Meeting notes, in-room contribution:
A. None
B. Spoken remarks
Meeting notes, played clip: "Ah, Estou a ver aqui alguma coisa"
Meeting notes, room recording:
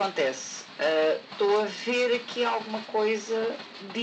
A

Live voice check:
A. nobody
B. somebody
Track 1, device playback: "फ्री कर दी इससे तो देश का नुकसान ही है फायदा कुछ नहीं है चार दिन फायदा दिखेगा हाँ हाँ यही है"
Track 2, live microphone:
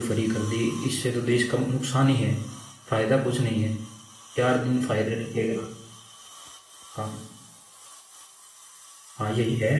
A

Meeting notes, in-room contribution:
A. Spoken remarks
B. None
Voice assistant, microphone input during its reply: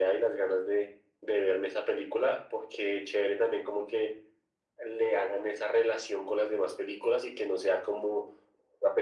B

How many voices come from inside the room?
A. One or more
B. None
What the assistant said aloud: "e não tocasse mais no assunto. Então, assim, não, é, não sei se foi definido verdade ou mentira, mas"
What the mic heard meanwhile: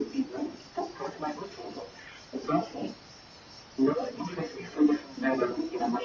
B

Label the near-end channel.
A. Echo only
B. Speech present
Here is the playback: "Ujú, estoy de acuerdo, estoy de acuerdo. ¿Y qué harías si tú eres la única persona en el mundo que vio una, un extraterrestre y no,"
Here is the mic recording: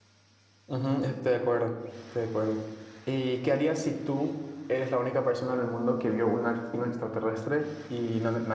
A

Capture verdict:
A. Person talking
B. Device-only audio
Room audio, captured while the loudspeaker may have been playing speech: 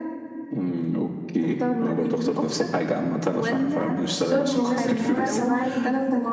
A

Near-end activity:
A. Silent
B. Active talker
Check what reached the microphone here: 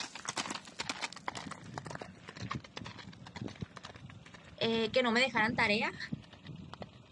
B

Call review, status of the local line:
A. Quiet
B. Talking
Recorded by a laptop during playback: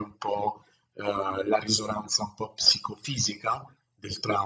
A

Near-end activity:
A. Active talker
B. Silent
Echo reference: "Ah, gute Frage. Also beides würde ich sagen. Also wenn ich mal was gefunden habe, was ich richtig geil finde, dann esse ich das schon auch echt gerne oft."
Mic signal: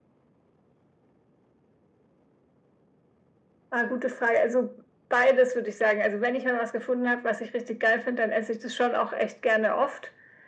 B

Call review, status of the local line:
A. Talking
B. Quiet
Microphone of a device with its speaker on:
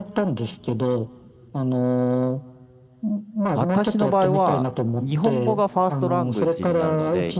A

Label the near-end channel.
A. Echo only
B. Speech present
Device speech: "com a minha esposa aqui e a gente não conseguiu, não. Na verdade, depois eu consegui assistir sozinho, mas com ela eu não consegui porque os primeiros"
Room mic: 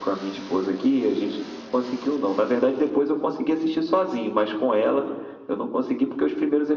A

